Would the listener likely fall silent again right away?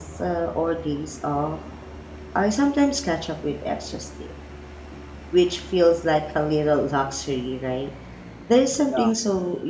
Yes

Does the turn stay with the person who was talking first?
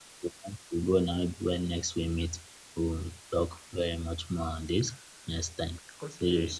No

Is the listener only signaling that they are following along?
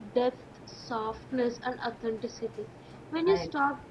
Yes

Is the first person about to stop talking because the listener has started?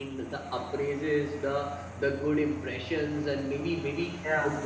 No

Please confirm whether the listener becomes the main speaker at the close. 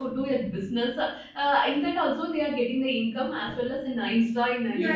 Yes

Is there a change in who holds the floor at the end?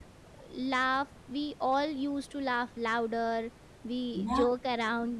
No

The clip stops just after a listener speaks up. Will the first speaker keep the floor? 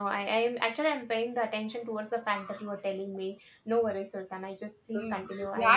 No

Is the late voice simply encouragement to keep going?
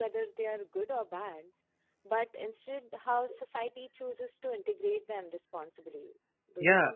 No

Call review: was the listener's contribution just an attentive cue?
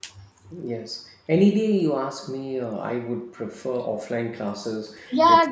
No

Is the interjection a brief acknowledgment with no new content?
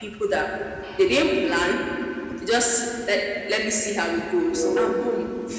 Yes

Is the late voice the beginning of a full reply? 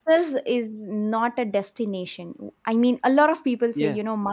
No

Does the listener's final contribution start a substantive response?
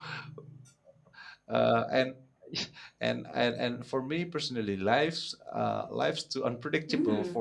Yes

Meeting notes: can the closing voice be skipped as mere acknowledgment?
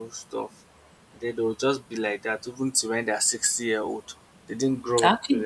No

